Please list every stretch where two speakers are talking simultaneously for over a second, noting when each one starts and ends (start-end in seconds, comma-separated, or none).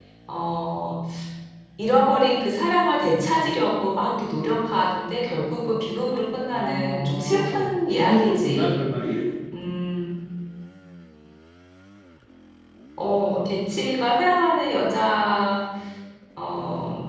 6.5-8.8